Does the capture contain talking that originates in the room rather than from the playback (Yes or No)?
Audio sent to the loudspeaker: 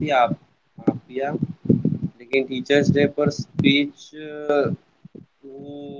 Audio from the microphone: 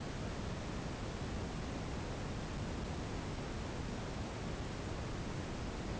No